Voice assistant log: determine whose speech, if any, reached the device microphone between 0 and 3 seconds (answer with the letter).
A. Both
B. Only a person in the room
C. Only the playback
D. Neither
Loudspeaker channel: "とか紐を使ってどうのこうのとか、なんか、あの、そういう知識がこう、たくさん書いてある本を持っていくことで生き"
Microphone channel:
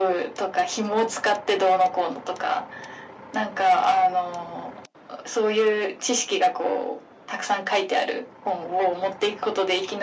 C